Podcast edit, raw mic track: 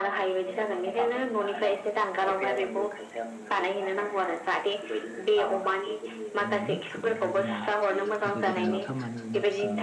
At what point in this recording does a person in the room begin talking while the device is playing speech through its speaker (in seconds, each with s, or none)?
6.5 s